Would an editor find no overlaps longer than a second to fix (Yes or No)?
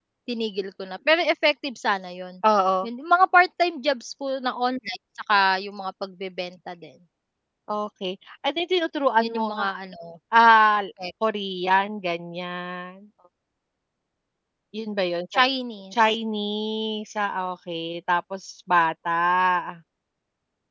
Yes